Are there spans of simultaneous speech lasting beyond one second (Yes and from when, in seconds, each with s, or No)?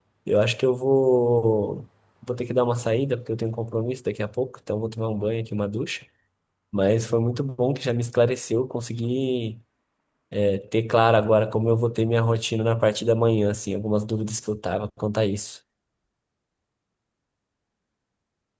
No